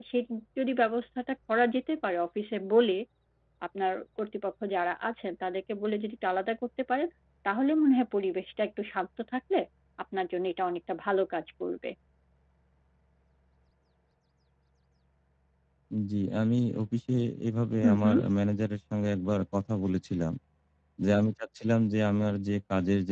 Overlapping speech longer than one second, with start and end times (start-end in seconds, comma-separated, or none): none